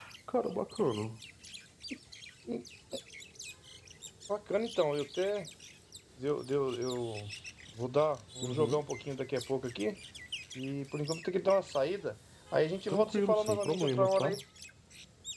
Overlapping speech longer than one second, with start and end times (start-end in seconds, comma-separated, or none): 12.9-14.4